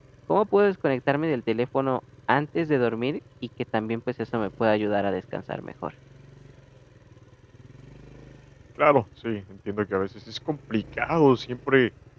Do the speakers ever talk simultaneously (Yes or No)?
No